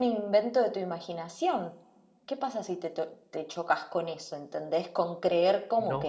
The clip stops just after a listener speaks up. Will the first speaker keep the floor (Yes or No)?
No